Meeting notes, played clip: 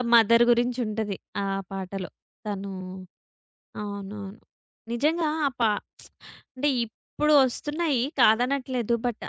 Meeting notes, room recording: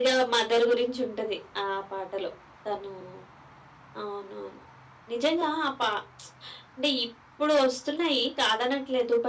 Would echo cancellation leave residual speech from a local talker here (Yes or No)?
No